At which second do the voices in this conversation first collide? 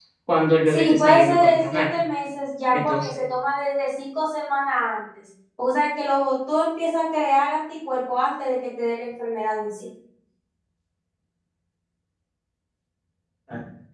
1 s

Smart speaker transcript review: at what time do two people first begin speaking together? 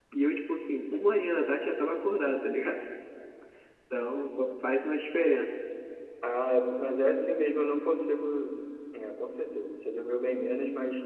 none

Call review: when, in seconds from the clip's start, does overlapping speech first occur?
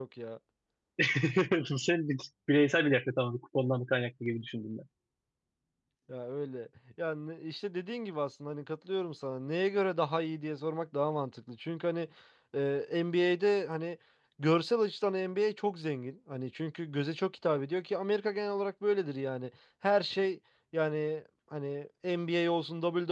none

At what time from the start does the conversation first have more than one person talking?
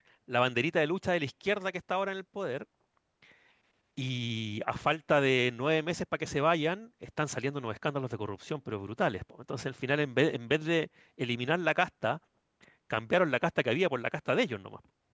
none

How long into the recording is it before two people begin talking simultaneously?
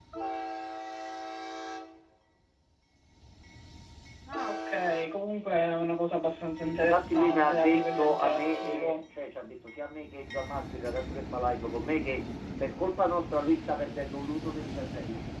7 s

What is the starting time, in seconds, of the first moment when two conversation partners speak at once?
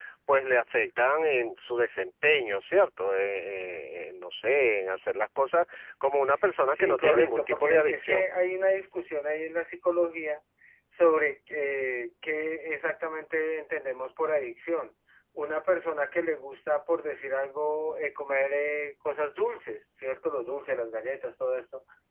7 s

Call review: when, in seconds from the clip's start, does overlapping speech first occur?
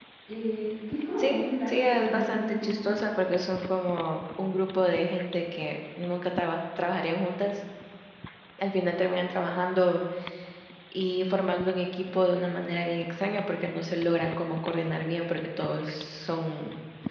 1 s

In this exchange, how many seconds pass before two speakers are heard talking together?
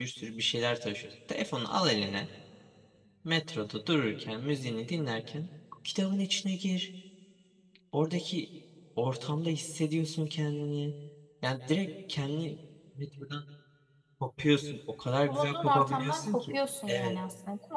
15 s

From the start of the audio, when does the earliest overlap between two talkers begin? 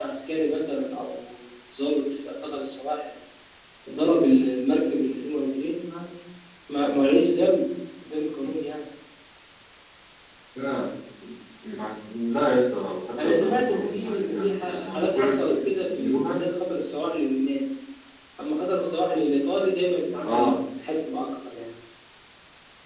13 s

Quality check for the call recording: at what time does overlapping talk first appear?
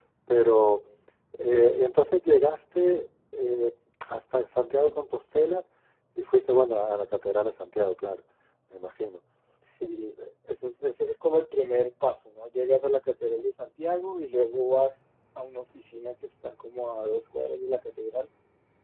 none

